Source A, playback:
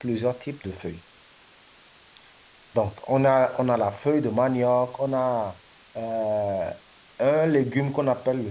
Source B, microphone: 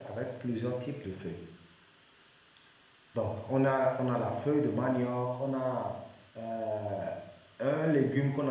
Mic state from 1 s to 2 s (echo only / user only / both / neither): echo only